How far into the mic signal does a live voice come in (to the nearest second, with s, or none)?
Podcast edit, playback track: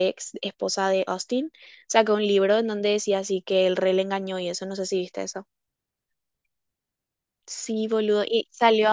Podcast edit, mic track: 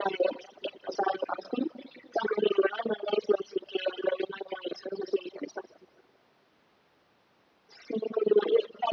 none